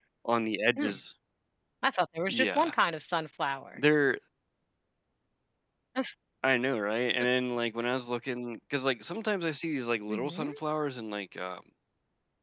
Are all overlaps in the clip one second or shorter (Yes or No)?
Yes